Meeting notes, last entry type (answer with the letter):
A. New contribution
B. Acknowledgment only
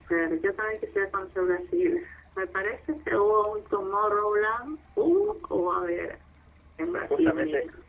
A